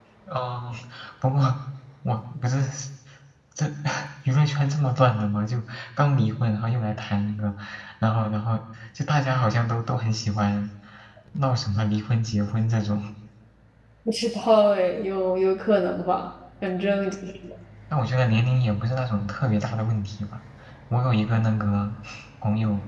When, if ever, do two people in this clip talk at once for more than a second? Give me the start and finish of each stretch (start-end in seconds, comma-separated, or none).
none